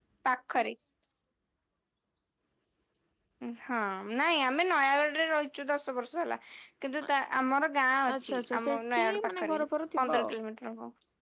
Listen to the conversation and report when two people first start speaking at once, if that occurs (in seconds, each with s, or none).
8.2 s